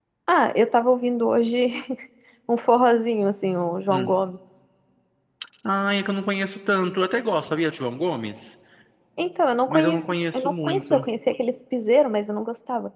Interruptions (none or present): present